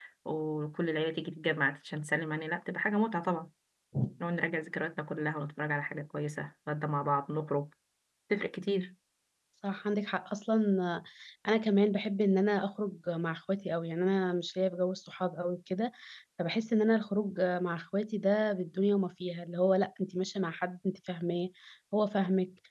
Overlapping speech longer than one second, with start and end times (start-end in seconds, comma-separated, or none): none